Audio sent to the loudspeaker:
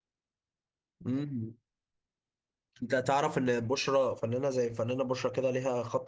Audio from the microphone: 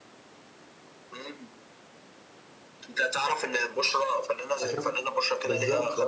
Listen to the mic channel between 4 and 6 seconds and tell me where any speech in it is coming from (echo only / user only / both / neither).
both